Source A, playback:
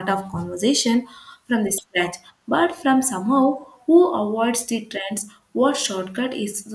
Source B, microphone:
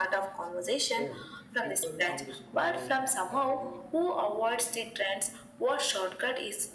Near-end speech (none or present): present